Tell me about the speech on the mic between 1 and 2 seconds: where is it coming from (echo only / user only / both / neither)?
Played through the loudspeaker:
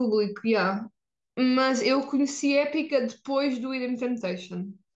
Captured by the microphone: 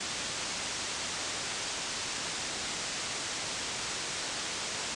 neither